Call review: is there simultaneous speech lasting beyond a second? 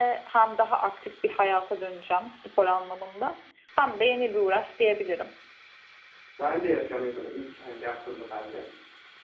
No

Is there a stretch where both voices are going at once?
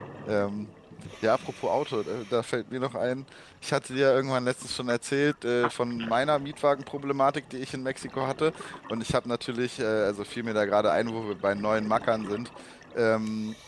No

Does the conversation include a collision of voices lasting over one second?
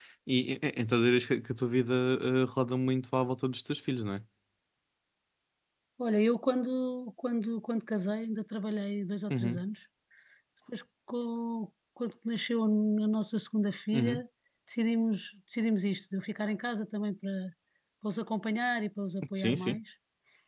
No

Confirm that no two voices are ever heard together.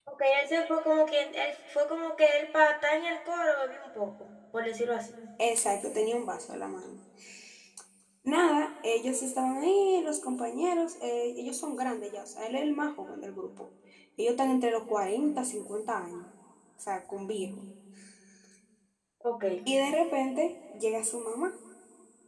Yes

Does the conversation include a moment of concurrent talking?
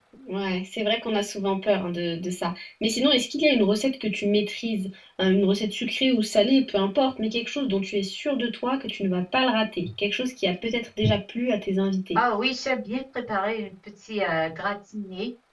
No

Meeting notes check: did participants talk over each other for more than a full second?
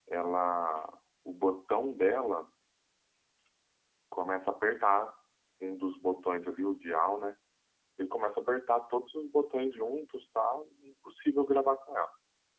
No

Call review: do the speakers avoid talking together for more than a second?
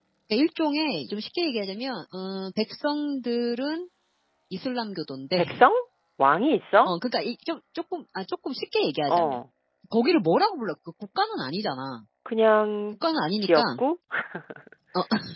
Yes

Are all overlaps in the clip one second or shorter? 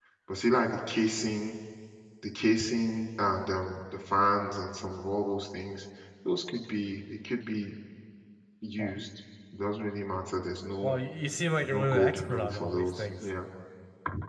No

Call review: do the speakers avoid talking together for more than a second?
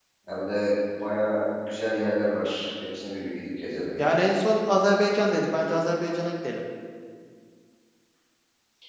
Yes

